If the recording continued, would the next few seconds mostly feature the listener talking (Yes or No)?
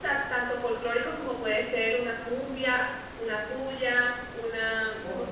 No